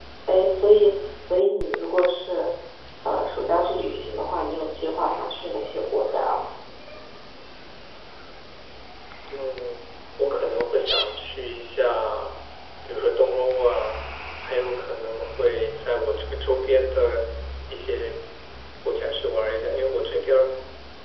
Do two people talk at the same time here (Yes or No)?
No